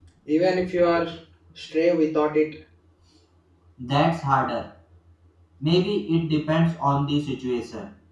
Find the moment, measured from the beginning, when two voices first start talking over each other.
none

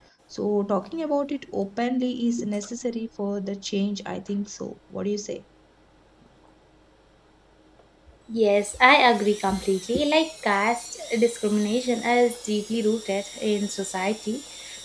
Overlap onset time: none

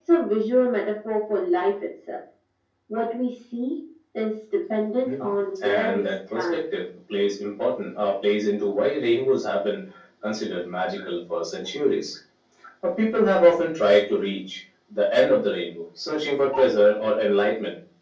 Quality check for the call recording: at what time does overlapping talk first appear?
5.0 s

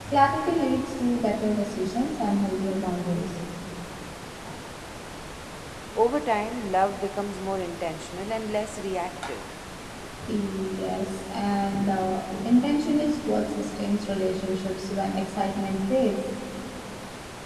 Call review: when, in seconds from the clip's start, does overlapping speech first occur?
none

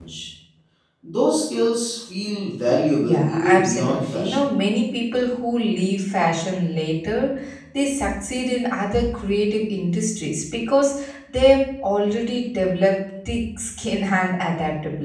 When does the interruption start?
3.0 s

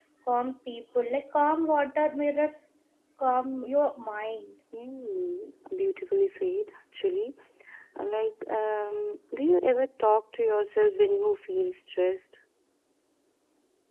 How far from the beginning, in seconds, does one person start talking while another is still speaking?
none

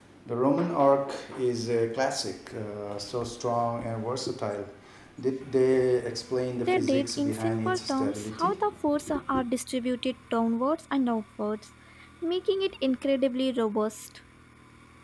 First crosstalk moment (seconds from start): 6.6 s

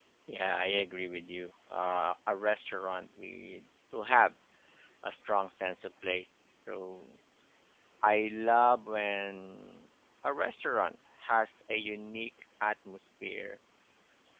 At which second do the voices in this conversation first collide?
none

